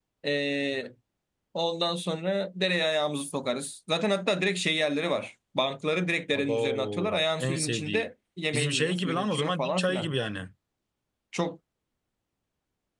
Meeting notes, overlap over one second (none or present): present